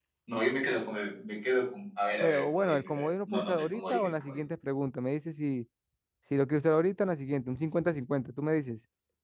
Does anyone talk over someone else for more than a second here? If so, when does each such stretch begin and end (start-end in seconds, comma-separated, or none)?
2.2-4.4